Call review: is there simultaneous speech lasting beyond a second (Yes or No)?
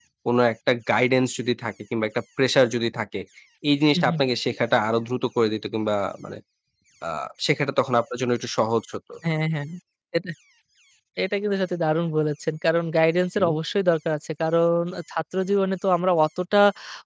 No